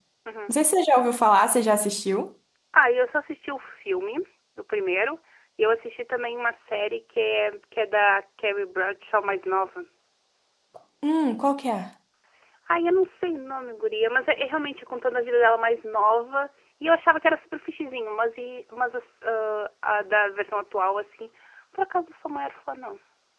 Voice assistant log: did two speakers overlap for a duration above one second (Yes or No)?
No